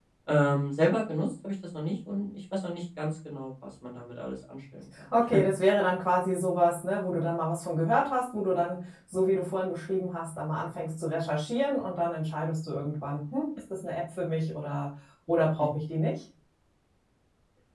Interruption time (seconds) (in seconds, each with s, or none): none